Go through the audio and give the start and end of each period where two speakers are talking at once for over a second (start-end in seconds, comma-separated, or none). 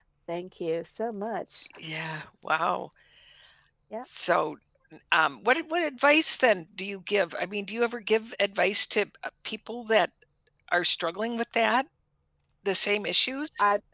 none